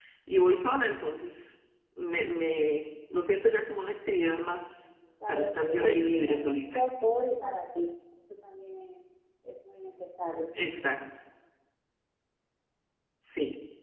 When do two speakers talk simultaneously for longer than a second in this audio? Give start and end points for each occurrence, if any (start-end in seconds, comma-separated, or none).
5.3-6.8